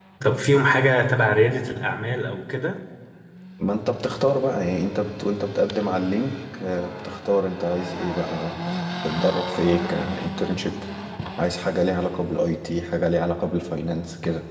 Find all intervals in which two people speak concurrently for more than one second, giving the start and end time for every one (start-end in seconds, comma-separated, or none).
none